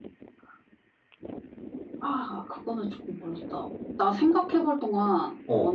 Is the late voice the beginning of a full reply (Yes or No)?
Yes